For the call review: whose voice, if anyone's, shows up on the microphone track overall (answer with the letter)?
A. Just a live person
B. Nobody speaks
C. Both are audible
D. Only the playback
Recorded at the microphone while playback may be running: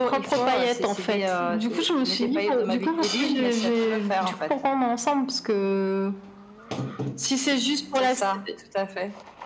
D